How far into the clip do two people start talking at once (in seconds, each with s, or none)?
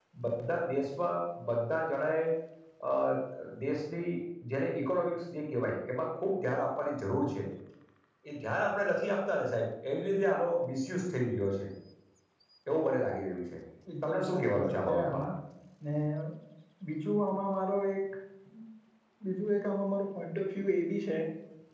14.0 s